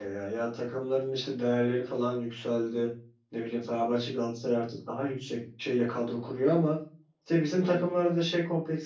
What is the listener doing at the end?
listening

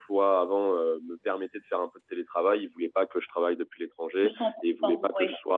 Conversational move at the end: listening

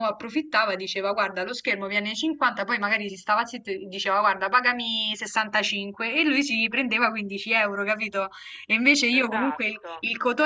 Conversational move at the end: listening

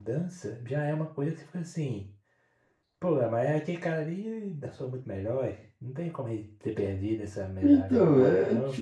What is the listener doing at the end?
taking over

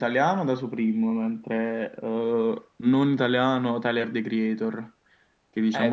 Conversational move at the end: taking over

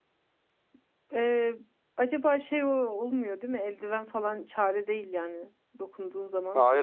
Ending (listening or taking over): taking over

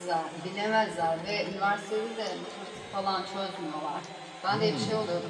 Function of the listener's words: listening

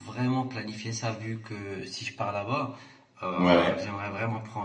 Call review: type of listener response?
listening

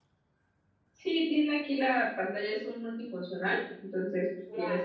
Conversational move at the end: taking over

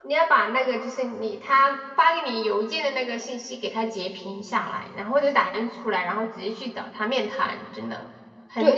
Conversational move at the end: taking over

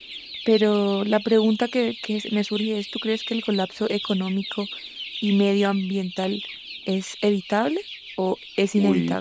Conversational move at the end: taking over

